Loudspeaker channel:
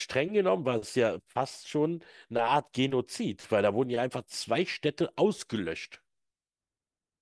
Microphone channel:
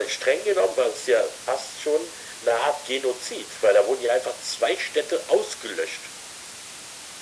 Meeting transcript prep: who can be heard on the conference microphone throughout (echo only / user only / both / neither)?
echo only